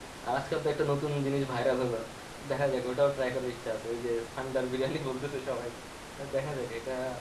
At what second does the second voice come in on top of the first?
none

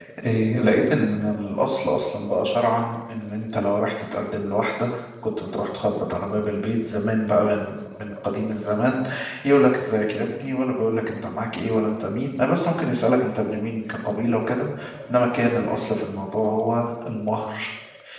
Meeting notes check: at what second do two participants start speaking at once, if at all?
none

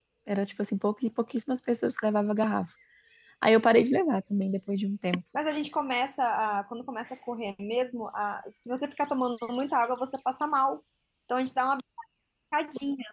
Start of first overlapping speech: none

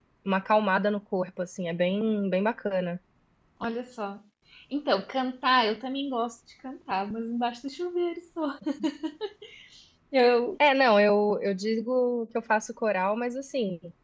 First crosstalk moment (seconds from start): none

